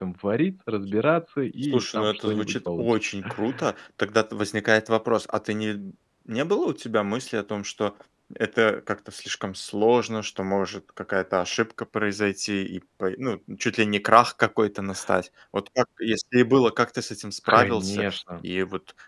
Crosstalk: present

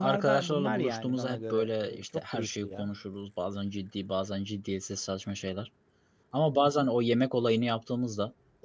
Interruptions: present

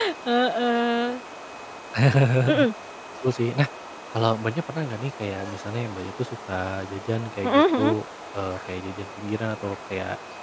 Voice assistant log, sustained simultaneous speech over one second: none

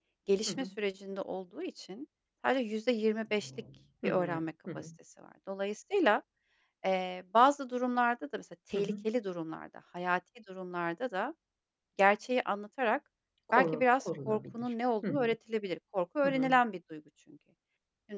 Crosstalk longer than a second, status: present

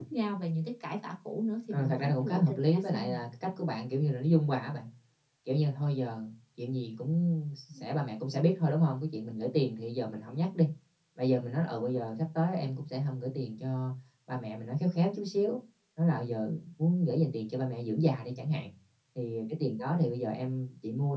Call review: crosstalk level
present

